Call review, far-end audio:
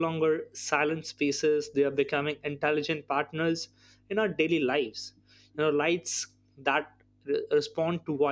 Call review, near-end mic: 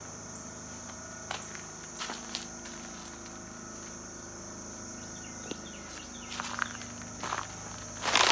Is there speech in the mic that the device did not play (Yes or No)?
No